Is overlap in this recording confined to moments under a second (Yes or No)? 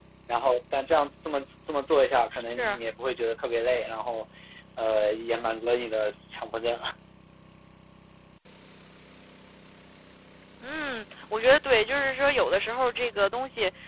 Yes